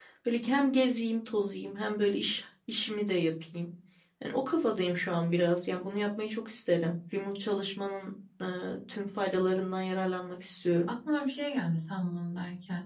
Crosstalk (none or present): none